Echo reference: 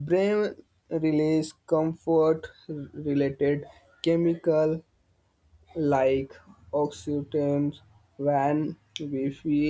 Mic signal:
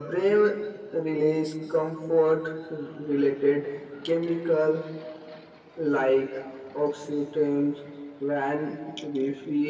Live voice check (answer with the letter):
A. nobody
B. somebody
A